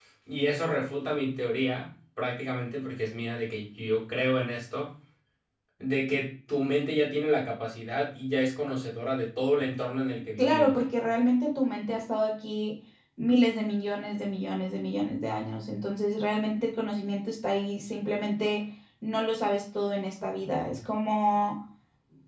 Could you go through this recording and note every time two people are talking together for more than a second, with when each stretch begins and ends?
none

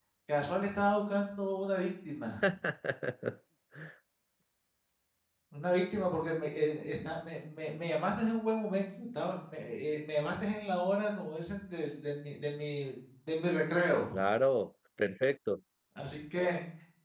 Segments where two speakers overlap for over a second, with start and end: none

